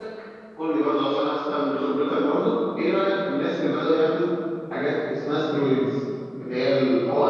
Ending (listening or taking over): taking over